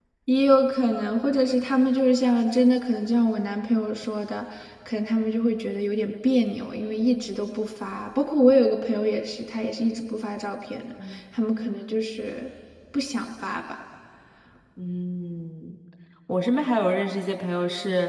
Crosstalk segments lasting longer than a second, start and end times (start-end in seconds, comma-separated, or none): none